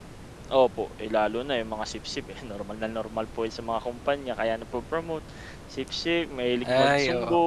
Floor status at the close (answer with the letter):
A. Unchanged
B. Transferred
B